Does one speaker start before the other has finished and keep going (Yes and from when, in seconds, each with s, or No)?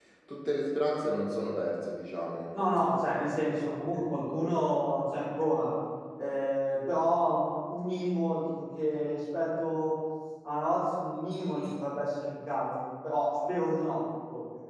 No